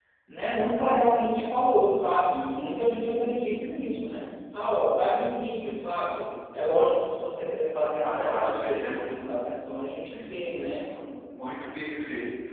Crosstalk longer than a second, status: present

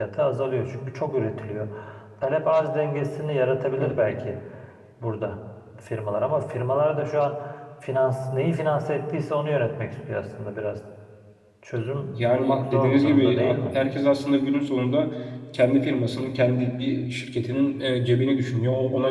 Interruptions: present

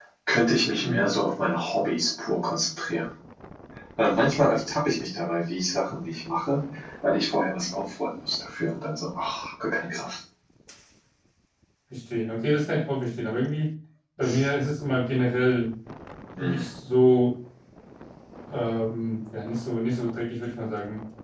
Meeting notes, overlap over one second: none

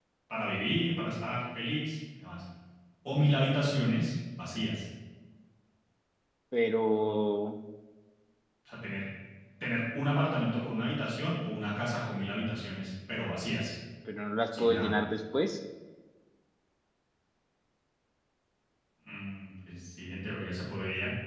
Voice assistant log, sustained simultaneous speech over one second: none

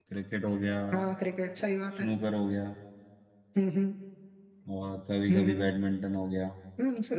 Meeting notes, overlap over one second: none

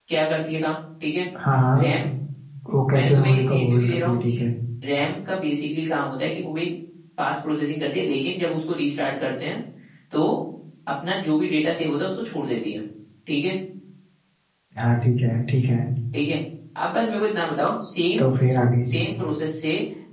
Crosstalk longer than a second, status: present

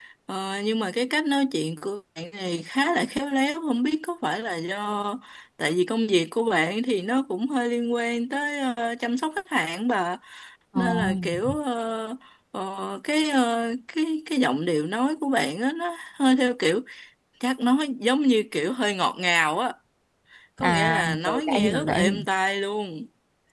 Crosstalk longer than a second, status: present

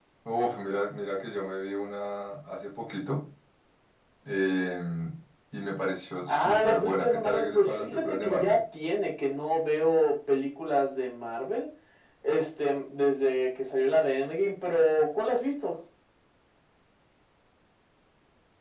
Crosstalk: present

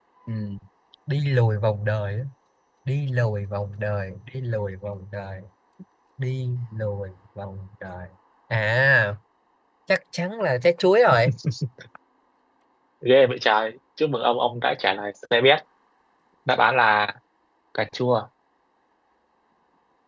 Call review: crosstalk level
none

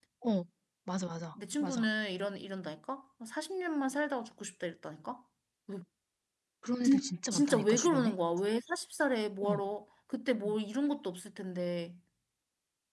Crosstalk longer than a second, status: present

